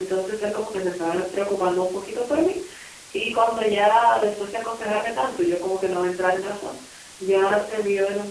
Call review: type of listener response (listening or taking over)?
listening